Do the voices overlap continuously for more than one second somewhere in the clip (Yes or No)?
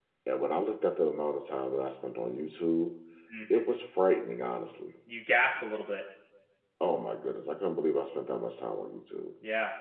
No